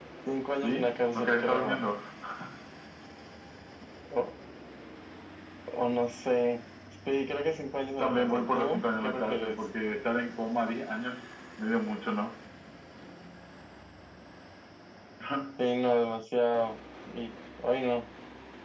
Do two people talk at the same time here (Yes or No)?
Yes